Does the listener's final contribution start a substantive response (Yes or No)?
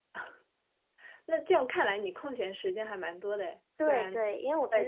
Yes